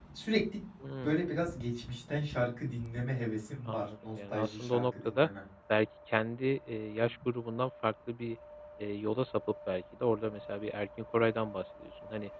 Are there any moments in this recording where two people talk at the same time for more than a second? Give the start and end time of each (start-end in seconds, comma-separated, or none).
3.6-5.3